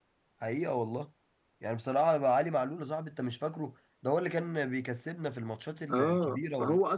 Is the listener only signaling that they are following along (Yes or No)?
No